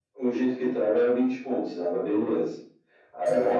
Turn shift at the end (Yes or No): No